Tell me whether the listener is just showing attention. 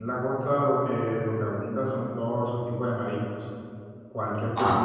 Yes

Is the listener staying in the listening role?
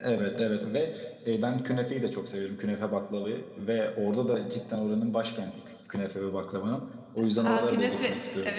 No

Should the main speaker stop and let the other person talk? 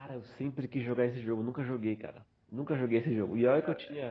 No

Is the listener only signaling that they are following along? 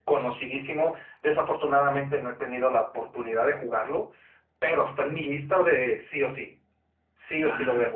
No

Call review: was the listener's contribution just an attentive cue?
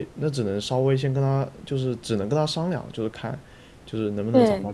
Yes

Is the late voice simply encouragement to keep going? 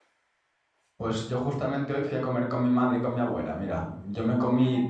Yes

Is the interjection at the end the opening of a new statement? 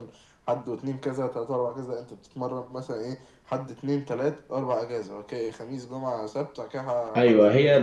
Yes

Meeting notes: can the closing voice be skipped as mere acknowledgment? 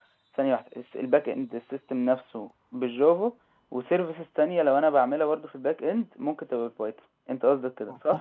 No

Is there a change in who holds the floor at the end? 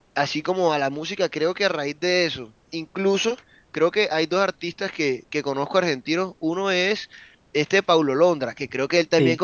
No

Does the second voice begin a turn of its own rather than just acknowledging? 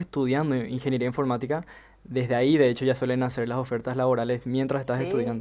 Yes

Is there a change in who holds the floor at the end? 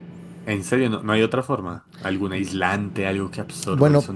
Yes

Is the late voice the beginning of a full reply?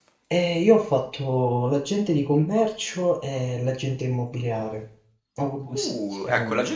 Yes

